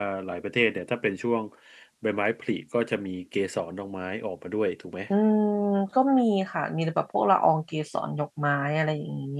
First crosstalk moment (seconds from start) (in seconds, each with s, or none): none